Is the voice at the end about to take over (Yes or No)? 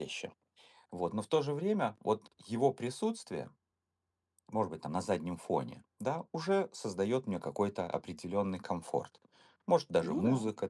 No